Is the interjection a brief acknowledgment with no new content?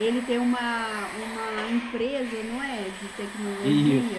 No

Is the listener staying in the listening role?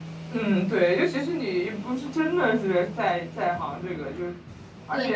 No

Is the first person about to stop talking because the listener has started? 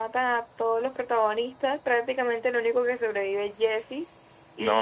Yes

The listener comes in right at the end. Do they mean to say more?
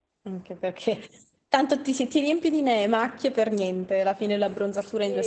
Yes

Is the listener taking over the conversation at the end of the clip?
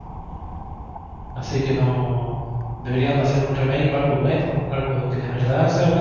Yes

